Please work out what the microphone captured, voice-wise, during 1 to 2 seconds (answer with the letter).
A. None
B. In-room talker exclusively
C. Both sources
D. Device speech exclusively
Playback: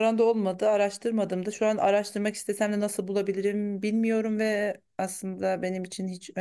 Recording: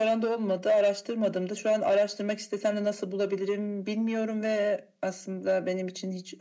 D